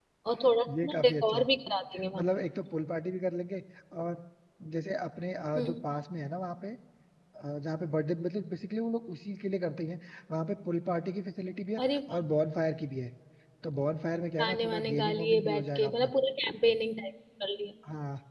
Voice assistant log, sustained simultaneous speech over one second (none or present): present